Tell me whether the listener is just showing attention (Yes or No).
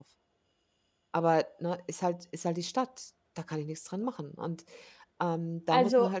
Yes